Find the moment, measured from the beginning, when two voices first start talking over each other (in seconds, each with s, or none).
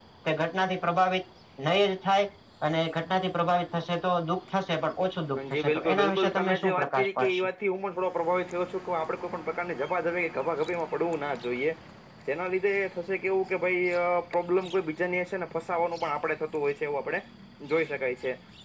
5.4 s